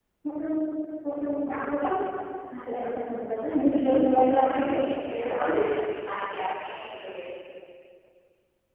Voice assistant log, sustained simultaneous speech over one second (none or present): present